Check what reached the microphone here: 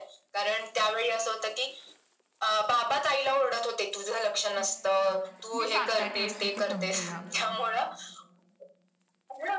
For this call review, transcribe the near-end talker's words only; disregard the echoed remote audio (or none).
अच्छा, म्हणजे 7-8 वर्षाचे समजूया आपण.